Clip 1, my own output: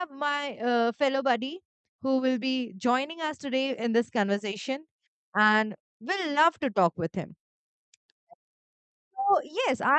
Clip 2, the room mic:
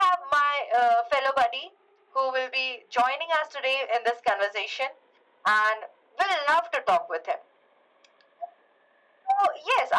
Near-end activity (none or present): none